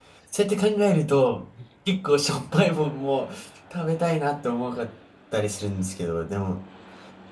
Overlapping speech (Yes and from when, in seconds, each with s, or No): No